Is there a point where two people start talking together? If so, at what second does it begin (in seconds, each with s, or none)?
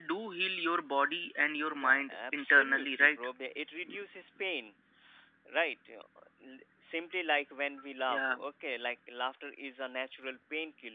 1.7 s